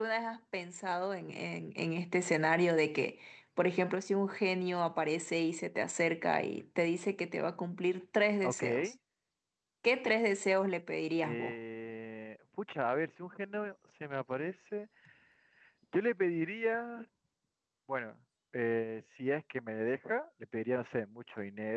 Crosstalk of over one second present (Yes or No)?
No